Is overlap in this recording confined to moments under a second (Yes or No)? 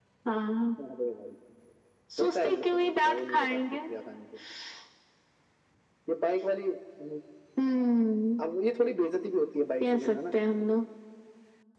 No